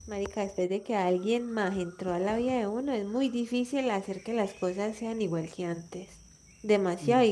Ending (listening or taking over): listening